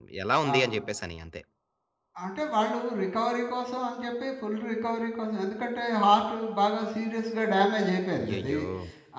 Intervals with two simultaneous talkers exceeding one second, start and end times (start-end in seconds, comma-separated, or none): none